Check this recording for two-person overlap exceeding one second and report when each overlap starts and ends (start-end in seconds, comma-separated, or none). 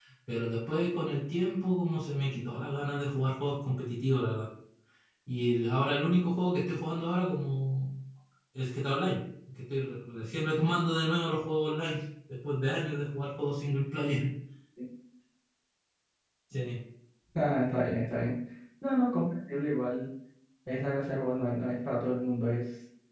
none